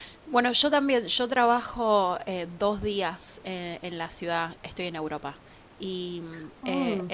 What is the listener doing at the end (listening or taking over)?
listening